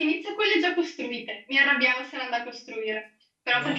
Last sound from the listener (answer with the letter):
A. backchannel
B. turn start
A